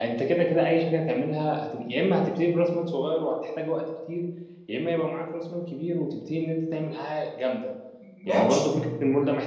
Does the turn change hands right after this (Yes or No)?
No